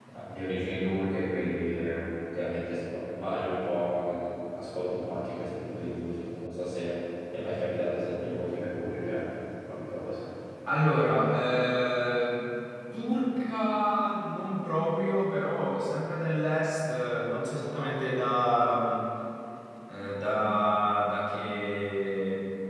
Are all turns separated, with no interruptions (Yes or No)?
Yes